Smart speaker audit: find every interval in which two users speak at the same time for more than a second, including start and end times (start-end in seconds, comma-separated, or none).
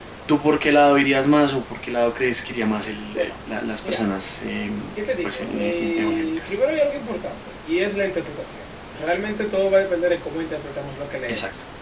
5.2-6.5